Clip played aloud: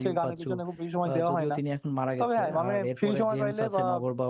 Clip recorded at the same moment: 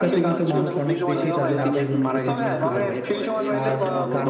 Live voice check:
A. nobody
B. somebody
B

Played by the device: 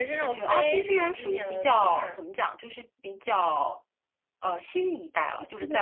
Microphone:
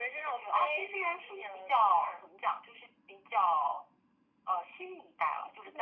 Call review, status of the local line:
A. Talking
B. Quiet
B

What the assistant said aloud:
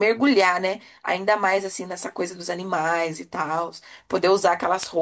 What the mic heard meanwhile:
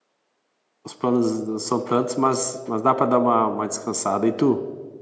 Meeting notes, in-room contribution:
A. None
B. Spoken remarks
B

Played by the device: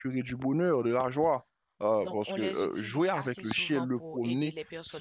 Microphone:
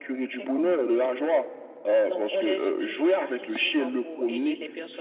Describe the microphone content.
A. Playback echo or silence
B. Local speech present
B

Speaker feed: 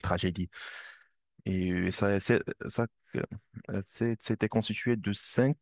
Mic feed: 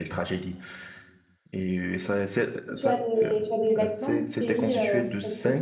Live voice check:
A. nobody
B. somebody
B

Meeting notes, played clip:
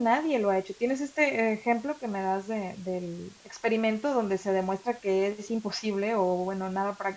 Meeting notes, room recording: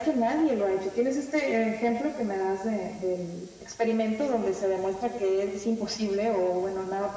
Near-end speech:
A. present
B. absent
B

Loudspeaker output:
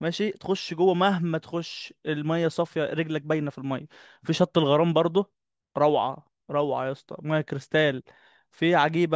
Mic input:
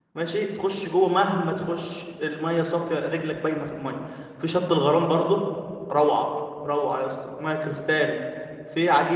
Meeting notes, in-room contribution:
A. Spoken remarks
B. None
B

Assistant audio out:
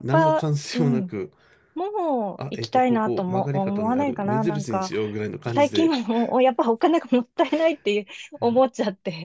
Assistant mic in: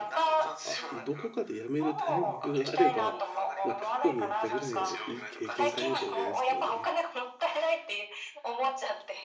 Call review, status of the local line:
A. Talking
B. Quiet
A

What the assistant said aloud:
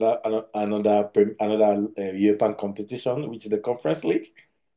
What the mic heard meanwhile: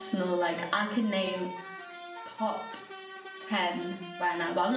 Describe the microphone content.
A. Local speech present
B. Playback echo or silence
A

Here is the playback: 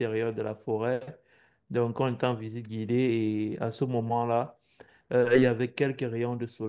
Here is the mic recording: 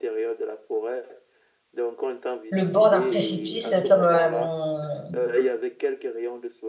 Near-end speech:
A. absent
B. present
B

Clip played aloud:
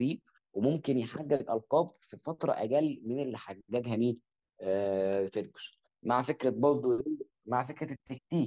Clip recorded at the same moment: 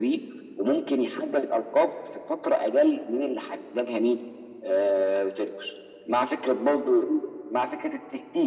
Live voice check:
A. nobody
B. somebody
A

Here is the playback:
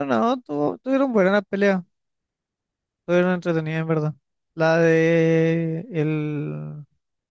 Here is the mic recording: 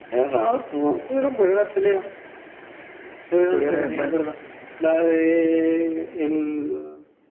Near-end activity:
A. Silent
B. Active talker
B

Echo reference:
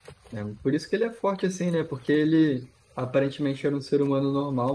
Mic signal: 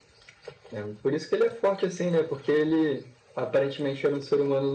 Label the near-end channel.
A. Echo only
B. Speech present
A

